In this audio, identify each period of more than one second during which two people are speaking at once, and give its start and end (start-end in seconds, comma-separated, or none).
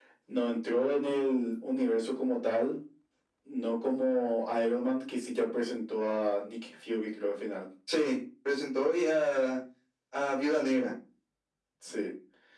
none